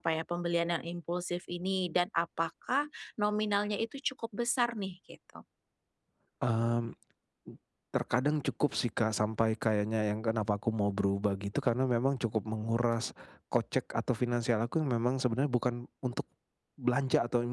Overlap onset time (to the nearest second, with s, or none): none